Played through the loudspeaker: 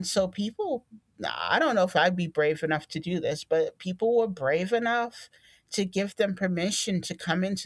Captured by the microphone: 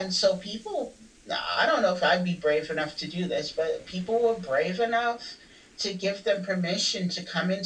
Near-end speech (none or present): none